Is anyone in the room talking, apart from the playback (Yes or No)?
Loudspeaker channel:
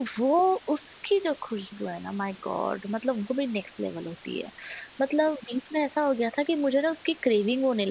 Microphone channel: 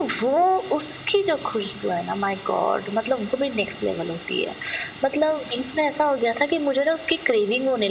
No